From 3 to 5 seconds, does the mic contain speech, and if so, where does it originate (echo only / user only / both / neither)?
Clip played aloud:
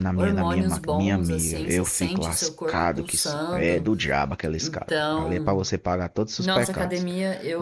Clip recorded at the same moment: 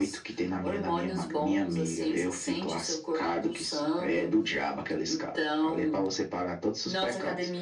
echo only